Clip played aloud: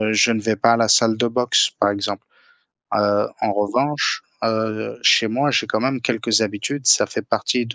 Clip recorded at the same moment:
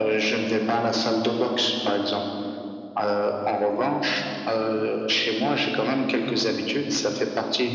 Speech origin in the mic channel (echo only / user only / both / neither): echo only